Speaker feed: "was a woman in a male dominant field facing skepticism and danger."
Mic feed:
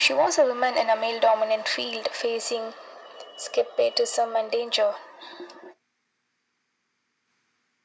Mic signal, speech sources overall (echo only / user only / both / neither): echo only